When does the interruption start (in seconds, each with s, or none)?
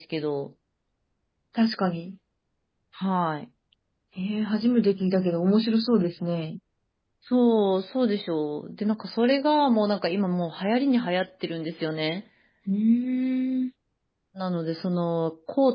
none